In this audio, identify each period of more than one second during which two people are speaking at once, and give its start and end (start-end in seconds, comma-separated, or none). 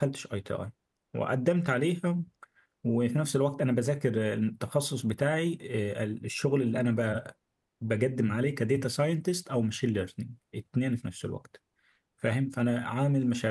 none